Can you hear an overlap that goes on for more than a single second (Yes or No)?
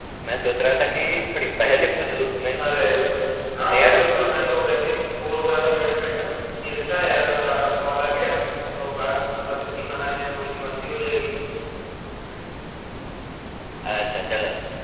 No